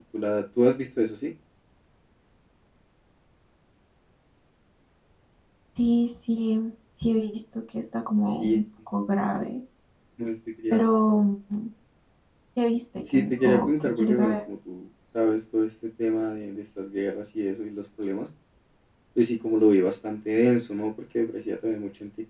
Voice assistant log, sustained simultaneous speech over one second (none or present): present